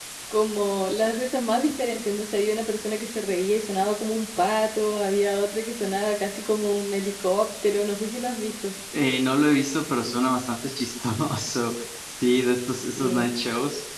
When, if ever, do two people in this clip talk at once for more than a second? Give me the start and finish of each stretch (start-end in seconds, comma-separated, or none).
none